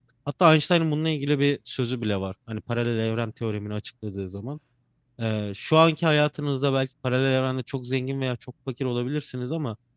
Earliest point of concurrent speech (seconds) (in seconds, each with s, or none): none